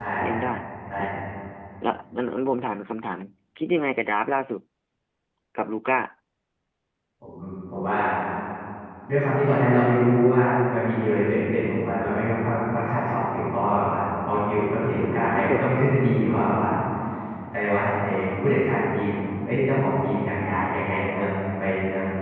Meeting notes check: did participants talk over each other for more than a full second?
No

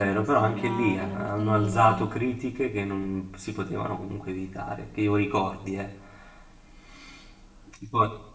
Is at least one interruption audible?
Yes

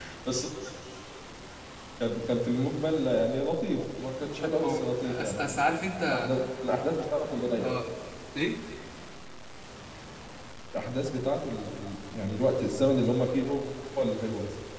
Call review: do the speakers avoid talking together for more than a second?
No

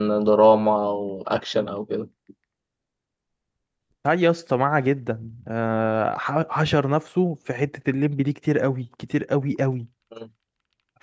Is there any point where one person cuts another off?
No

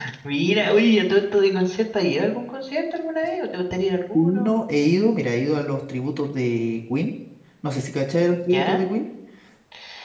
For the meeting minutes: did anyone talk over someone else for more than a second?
No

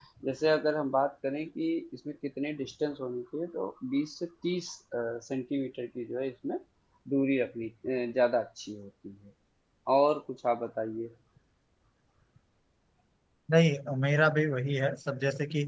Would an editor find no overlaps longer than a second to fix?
Yes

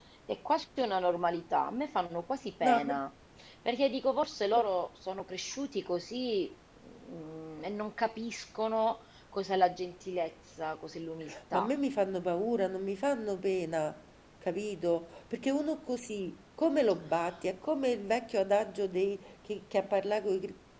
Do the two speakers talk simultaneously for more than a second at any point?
No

